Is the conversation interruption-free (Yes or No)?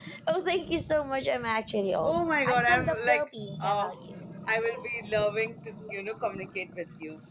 No